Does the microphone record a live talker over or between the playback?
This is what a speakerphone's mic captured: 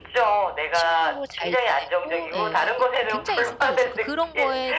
Yes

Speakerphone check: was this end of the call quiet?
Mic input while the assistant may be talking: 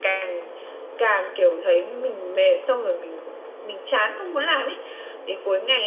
Yes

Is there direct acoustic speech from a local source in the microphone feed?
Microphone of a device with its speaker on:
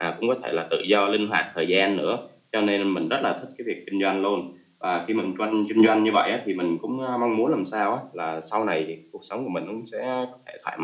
No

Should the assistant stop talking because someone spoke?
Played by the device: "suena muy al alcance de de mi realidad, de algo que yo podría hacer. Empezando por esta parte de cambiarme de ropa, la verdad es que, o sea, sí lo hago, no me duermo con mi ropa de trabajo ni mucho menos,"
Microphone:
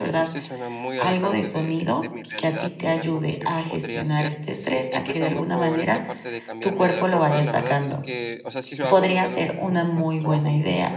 Yes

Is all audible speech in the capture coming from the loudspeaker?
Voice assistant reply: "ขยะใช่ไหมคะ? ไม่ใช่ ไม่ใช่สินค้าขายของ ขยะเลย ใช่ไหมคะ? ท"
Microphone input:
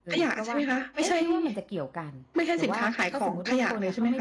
No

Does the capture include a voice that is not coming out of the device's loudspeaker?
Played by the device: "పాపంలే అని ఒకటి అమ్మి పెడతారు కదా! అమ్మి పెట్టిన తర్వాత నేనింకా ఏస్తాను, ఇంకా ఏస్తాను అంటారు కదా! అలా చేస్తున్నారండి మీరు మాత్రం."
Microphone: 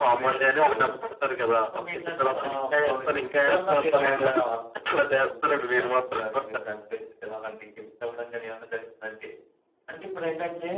Yes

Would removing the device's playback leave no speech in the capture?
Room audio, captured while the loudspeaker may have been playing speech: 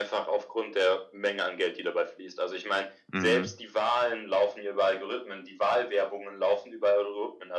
No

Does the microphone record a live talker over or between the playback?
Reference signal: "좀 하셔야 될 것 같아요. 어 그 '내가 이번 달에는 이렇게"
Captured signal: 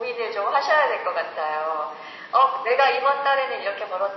No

